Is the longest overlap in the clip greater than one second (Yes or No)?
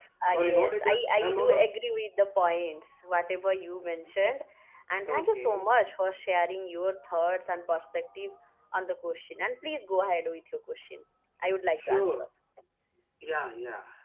Yes